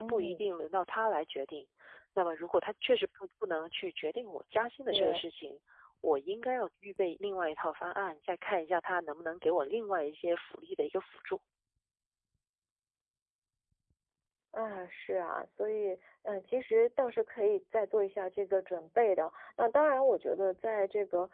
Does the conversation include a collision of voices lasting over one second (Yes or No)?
No